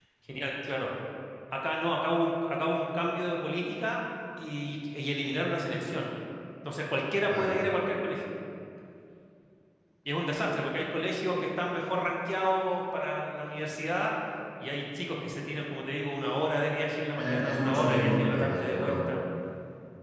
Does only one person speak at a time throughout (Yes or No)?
No